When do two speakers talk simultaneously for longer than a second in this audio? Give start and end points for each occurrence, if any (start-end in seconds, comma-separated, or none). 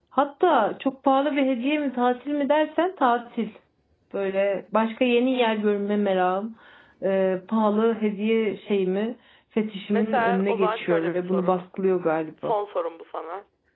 9.9-11.6